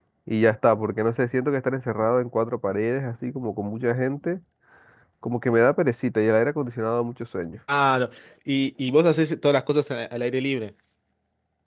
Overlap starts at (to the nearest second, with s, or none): none